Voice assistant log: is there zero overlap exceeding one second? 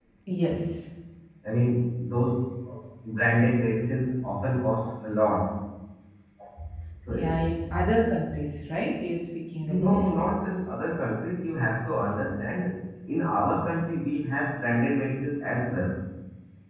Yes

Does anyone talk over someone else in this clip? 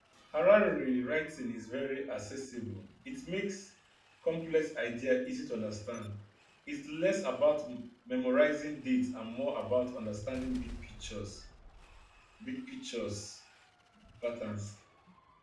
No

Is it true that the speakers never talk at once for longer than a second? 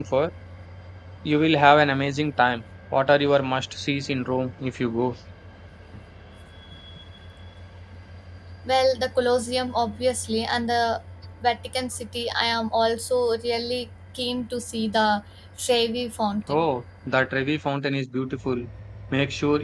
Yes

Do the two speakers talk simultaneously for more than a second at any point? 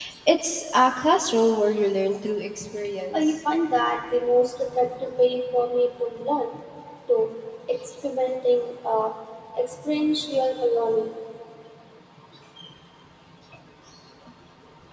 No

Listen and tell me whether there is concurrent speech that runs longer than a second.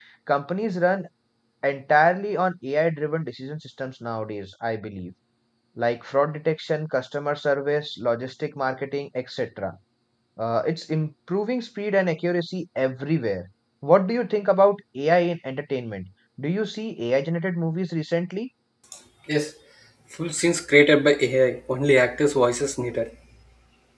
No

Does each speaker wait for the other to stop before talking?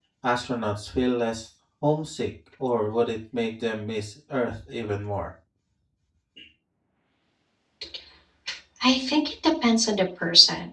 Yes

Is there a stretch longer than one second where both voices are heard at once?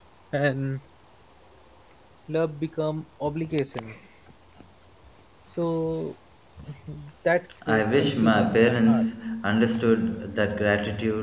Yes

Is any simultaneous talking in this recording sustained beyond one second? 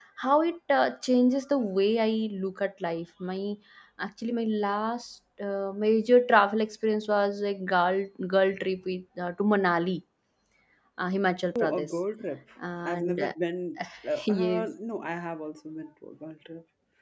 No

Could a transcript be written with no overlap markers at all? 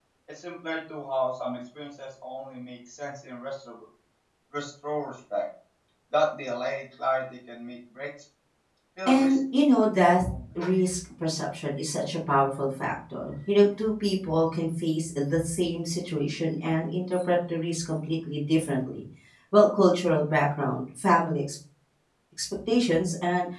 No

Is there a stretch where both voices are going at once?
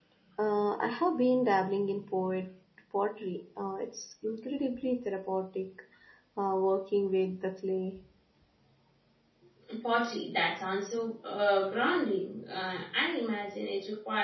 No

